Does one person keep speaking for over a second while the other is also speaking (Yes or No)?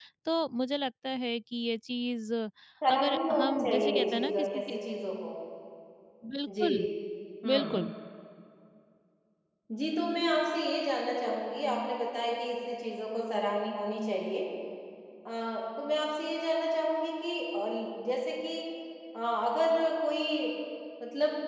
Yes